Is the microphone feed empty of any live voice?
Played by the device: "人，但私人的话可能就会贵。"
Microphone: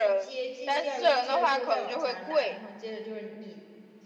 No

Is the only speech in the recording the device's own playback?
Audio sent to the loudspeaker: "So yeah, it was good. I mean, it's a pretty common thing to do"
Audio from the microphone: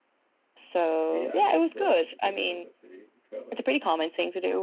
No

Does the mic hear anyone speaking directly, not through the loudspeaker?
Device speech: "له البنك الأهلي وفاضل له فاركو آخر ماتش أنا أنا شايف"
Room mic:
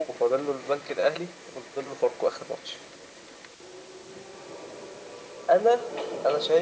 No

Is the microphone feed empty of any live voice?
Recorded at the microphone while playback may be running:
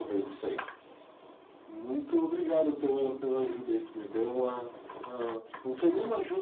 Yes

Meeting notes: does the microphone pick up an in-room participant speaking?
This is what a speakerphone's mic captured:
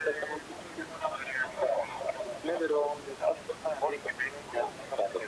No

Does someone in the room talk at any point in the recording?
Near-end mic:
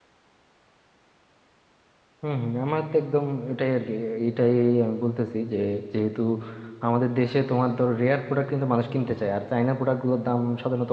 Yes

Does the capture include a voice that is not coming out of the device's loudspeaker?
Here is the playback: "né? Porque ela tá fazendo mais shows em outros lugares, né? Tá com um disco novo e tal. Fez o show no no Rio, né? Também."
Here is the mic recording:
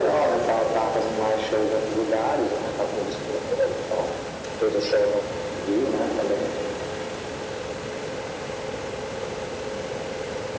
No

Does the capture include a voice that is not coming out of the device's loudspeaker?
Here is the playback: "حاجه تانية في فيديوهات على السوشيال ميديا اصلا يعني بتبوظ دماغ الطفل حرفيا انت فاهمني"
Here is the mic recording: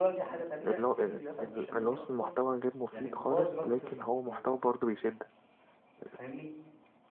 Yes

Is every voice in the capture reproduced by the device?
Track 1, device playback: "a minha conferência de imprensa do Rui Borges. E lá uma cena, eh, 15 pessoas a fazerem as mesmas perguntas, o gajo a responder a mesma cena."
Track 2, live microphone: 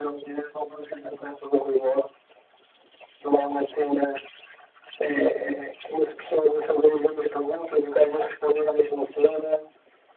Yes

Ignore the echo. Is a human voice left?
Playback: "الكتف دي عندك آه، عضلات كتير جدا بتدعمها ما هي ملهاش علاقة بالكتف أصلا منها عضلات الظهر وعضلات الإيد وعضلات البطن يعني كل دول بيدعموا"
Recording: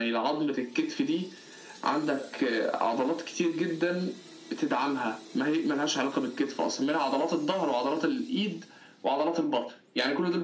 No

